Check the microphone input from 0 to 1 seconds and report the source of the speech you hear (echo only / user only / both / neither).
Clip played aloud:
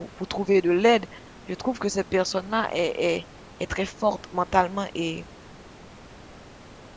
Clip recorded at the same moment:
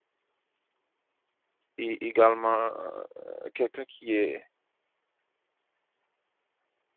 neither